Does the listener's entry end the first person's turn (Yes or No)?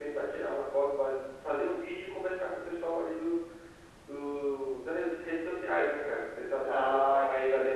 No